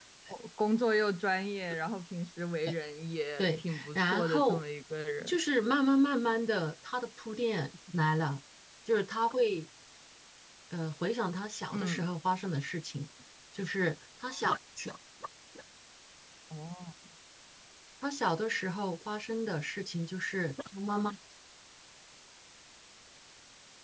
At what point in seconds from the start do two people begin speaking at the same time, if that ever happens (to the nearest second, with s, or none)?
3 s